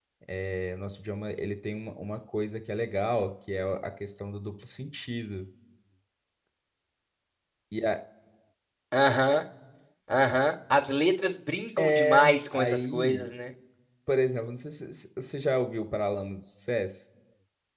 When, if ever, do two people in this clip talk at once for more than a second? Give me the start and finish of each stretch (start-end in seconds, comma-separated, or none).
11.8-13.3